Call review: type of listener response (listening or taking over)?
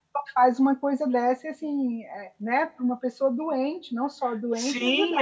taking over